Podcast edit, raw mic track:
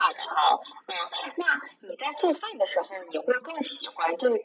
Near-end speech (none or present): none